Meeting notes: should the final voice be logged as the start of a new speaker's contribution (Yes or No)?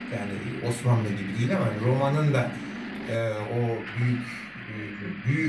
No